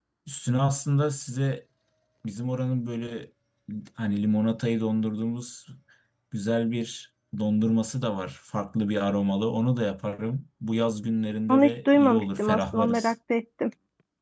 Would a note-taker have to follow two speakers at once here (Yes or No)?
Yes